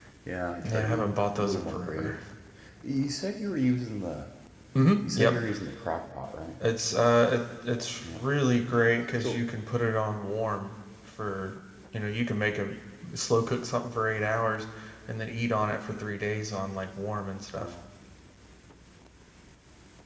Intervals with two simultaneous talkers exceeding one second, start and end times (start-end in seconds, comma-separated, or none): 0.6-2.2